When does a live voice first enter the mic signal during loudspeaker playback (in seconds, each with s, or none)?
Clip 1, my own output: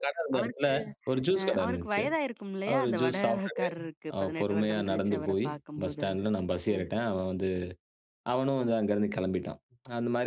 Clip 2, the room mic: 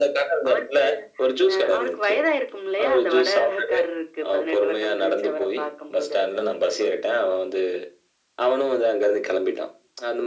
none